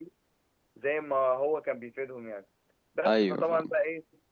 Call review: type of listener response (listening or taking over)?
listening